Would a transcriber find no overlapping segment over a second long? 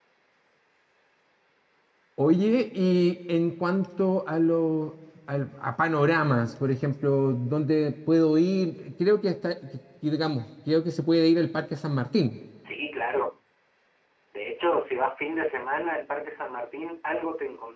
Yes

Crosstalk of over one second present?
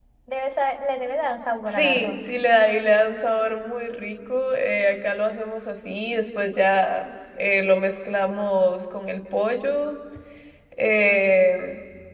No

